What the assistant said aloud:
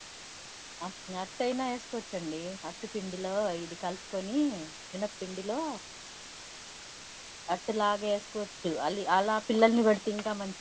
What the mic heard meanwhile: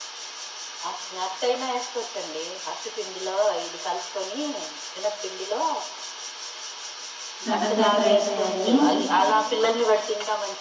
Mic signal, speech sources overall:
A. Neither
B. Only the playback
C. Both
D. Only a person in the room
C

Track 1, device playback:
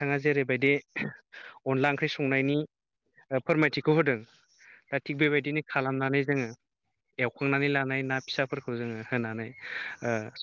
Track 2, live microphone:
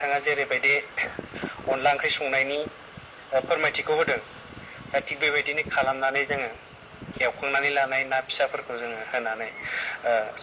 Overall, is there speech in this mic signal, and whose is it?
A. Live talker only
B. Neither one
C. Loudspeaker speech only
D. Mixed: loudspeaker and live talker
C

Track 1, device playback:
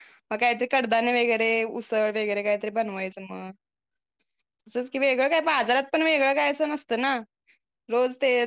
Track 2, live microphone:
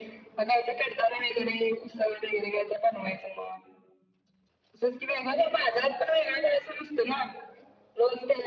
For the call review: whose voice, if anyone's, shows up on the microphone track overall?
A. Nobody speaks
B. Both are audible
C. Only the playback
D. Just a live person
C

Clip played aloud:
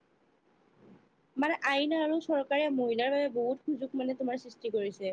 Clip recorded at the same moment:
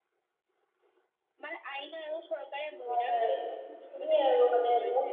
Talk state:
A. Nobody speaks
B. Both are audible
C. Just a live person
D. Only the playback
B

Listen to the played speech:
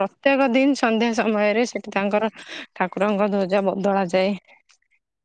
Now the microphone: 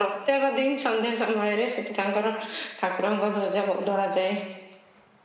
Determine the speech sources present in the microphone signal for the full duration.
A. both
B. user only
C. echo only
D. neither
C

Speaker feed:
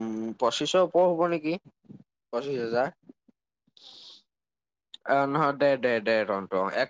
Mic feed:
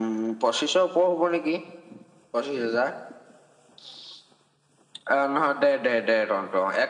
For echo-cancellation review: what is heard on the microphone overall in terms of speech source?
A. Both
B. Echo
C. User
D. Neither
B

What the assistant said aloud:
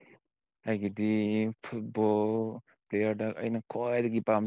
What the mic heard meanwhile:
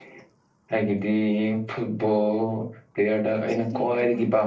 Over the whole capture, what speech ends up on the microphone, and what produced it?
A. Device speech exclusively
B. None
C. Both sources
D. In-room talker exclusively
C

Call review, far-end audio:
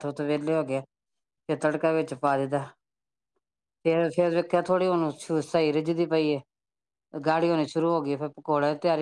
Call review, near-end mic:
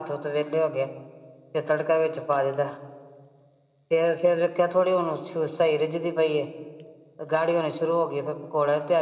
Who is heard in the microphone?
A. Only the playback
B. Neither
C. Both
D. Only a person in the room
A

